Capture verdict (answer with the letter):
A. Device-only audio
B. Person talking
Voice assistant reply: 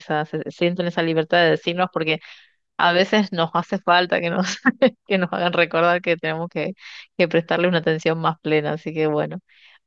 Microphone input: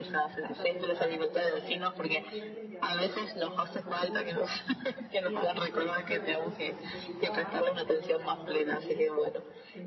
B